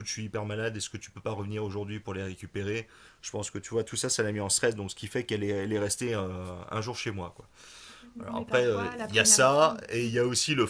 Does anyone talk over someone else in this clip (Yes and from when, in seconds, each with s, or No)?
Yes, from 8.2 s